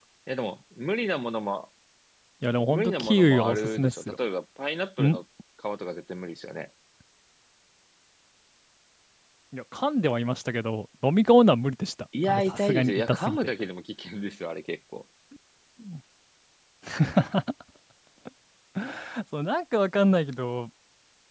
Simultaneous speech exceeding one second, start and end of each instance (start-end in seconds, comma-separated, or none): 2.7-4.2, 12.2-13.5